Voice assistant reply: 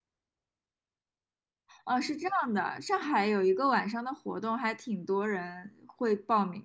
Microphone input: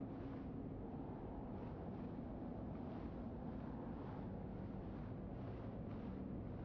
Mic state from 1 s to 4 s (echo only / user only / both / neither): neither